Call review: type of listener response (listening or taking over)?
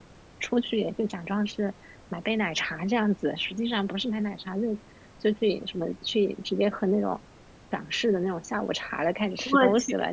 listening